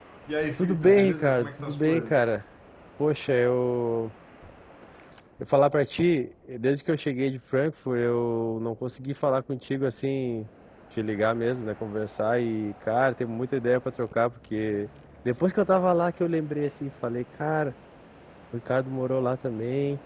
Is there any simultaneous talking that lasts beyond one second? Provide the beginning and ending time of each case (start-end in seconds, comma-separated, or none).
0.6-2.2